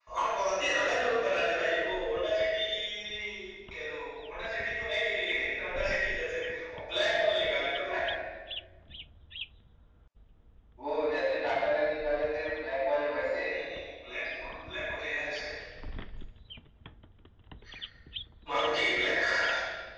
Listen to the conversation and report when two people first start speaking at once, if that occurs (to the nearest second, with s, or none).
none